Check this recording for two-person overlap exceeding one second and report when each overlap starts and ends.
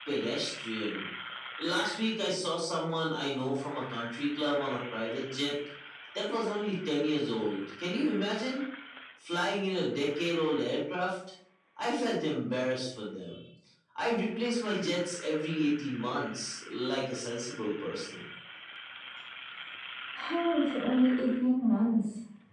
none

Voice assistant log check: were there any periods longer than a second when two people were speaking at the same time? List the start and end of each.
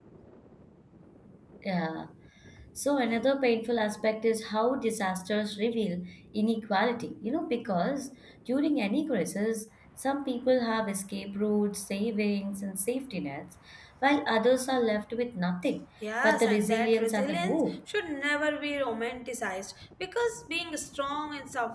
16.2-17.8

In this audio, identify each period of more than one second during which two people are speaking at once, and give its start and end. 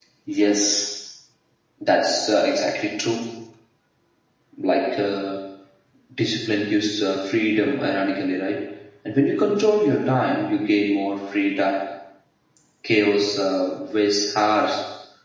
none

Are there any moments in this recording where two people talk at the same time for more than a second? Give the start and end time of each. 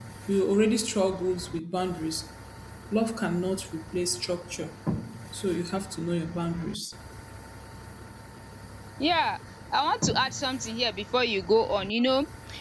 none

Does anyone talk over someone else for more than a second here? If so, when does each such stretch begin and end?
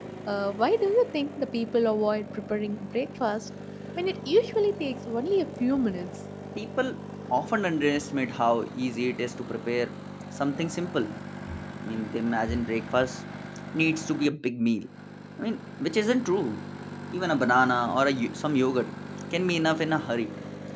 none

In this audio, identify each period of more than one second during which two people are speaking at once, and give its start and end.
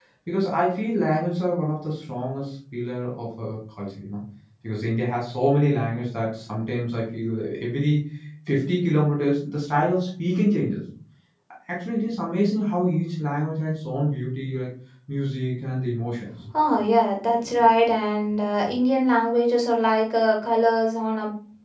none

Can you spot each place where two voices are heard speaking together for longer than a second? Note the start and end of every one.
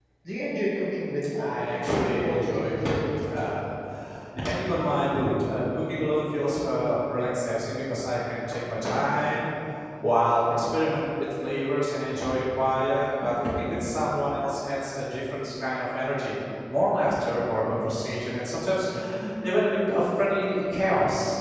1.4-3.6

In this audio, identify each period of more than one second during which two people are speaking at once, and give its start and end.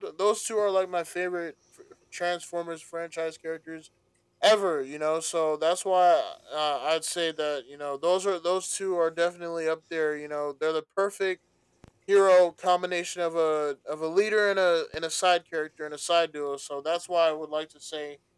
none

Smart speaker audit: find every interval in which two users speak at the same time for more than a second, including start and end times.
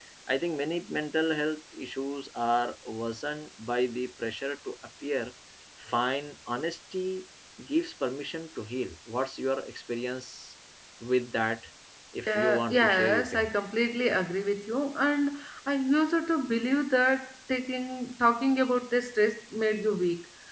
12.3-13.5

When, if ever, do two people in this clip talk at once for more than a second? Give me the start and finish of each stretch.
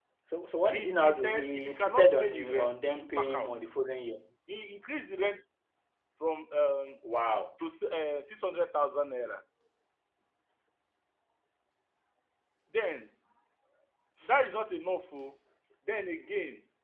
0.7-3.5

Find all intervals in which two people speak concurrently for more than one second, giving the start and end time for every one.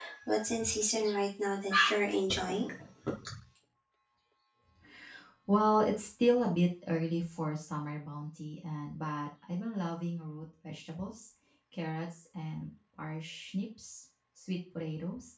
none

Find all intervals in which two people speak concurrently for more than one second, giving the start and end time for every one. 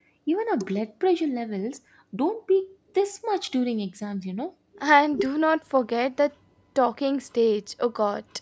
none

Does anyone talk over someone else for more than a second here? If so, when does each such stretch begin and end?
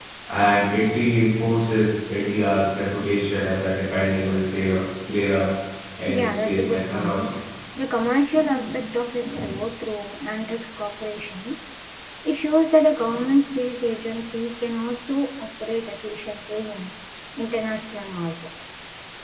6.1-7.3

